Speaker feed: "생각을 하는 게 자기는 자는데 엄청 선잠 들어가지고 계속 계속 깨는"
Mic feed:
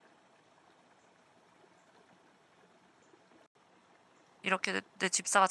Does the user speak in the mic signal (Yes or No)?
Yes